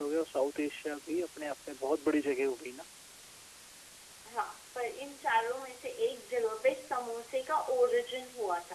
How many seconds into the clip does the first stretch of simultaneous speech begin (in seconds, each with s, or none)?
none